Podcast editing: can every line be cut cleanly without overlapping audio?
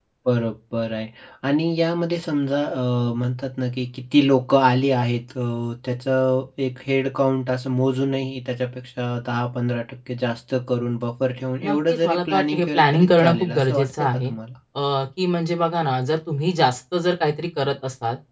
No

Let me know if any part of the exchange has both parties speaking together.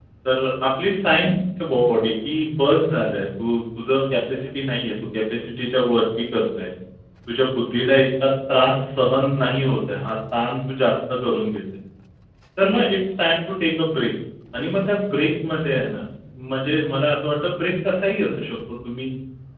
No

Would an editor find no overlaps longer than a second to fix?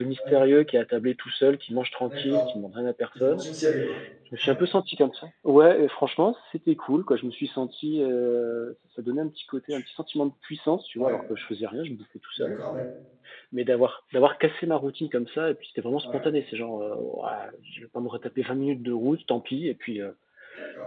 Yes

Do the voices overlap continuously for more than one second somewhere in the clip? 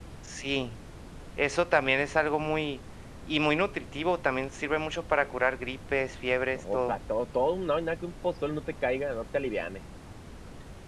No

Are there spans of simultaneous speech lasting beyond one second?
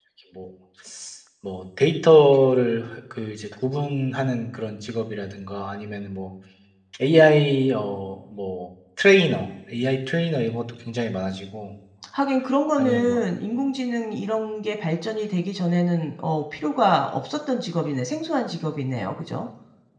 No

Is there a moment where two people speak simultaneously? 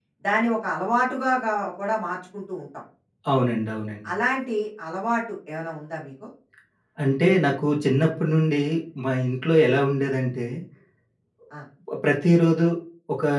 No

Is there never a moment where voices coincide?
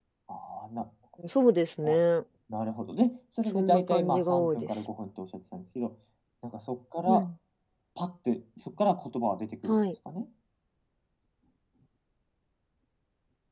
No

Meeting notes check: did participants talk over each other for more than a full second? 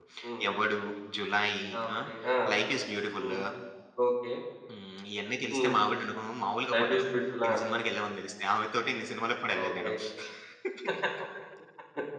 No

